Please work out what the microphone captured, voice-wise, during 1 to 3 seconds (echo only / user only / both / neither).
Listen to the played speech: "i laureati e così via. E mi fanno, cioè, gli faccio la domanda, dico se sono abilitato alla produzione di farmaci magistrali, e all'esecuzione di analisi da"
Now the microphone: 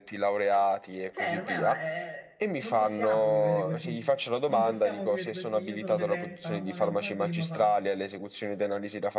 both